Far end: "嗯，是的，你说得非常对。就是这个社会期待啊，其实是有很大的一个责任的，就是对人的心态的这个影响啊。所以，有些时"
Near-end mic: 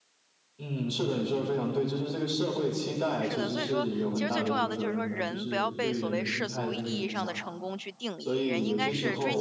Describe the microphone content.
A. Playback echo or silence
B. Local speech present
B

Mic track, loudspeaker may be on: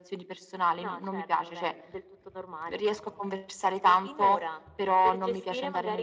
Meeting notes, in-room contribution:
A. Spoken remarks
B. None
B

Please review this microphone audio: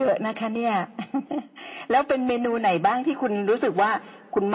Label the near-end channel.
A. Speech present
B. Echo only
B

